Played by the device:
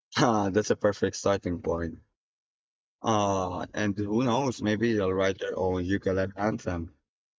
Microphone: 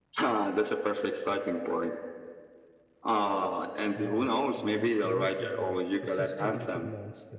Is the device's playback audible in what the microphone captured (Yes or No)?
Yes